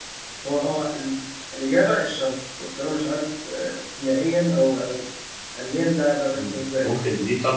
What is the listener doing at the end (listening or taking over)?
taking over